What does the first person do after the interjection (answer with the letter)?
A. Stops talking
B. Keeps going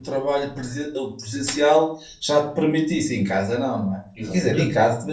B